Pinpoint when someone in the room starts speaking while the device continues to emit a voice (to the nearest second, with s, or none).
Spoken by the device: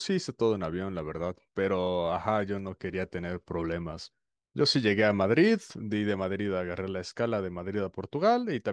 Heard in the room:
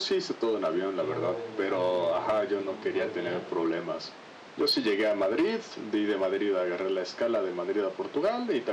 1 s